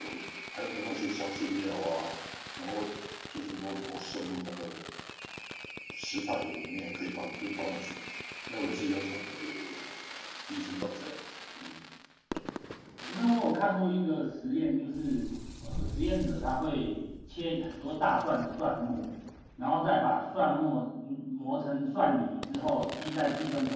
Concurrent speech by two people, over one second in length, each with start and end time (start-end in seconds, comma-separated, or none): none